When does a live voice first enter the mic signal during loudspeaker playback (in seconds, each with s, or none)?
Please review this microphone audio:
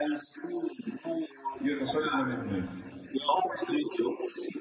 1.6 s